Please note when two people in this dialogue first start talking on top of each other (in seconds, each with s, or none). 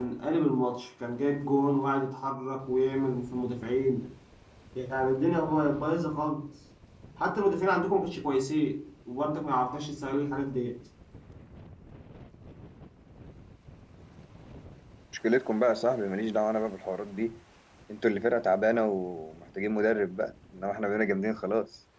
none